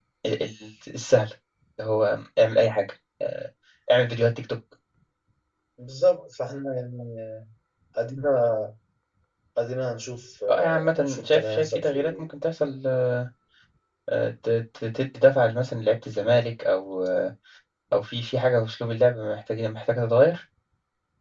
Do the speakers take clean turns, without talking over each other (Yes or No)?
No